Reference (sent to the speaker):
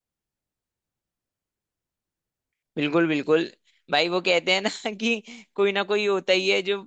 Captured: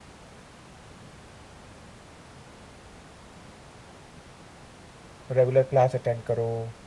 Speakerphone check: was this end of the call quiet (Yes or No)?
No